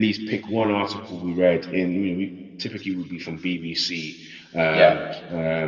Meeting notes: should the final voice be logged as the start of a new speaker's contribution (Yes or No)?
No